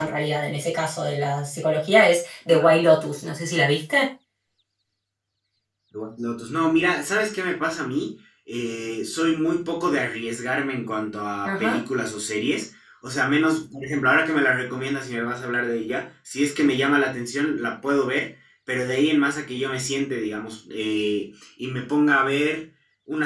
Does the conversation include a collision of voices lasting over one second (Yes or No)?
No